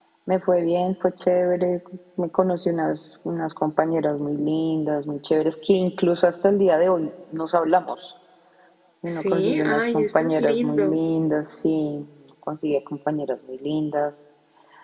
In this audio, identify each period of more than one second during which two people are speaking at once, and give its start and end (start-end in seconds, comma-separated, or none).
9.1-11.0